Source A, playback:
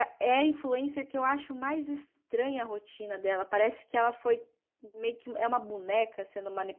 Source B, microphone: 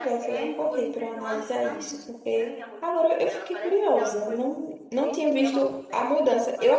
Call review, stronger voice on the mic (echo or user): user